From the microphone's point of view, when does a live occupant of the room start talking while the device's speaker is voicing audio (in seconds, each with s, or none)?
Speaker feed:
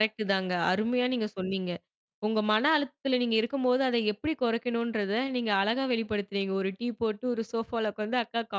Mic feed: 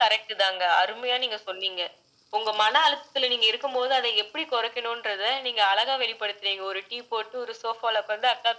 none